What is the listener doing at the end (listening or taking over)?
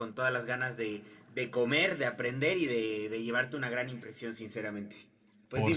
taking over